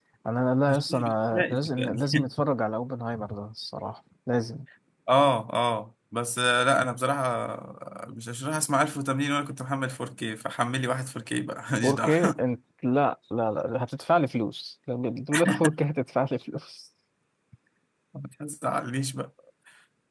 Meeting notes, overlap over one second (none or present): present